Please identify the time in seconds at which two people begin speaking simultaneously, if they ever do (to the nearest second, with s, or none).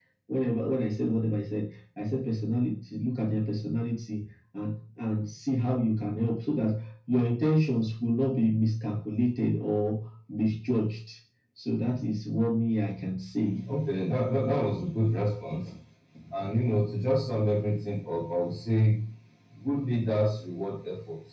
none